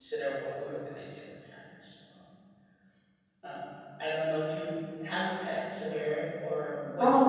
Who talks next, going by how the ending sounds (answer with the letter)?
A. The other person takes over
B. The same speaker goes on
A